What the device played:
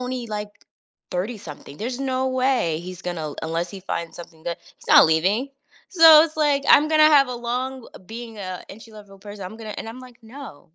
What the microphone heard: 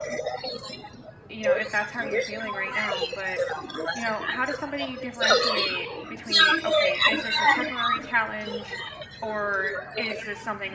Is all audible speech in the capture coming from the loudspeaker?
No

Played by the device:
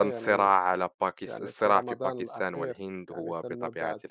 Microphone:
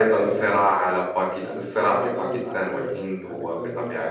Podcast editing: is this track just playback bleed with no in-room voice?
Yes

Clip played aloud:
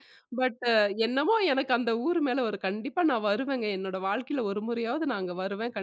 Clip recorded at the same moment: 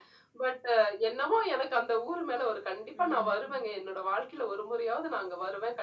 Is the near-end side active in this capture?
Yes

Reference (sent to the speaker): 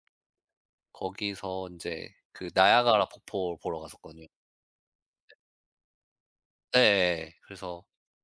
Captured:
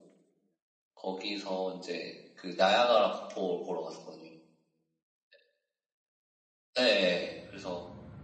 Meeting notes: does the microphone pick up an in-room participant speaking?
No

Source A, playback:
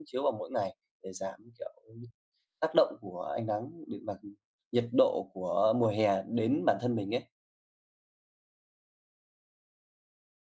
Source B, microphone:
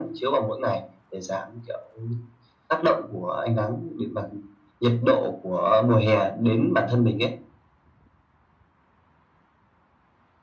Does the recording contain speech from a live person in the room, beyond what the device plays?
No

